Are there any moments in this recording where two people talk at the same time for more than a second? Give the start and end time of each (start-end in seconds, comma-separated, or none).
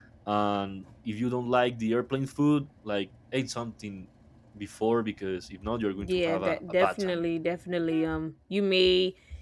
6.0-7.2